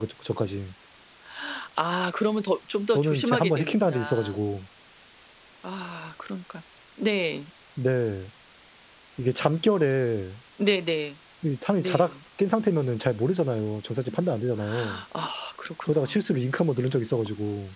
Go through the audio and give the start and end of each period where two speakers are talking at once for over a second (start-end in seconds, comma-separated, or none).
2.9-4.3